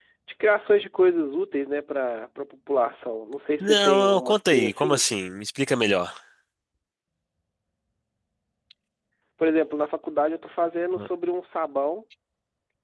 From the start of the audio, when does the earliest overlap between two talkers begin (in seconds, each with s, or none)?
3.6 s